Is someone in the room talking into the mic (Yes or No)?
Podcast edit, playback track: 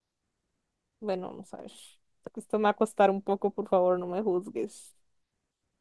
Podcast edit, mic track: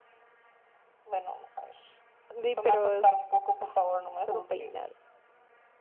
Yes